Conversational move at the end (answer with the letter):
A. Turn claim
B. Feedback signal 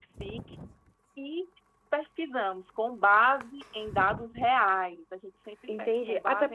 A